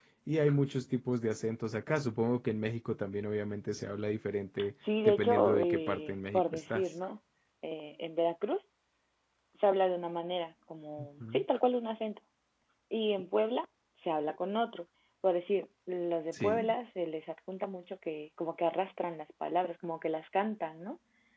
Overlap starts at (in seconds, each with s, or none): 5.0 s